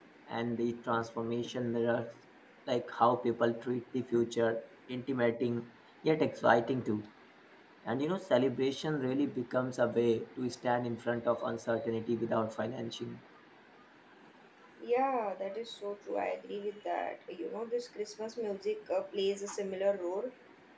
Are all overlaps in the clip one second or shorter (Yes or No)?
Yes